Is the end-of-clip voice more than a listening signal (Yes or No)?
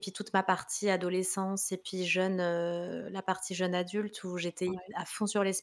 No